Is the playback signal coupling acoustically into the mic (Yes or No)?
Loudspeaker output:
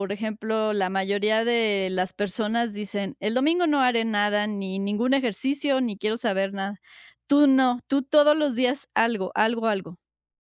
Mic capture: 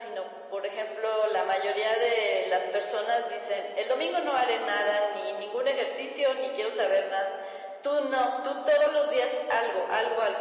Yes